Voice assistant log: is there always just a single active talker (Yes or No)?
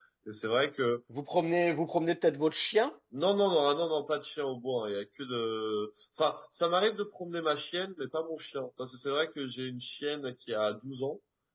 Yes